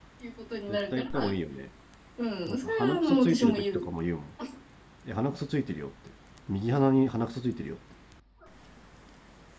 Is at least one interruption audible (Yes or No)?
Yes